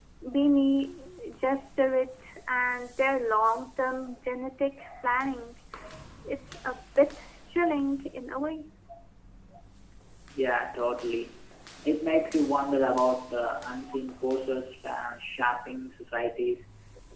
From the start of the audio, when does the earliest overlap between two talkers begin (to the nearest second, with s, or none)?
none